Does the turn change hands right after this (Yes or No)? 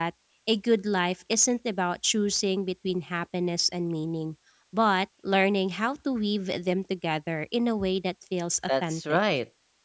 Yes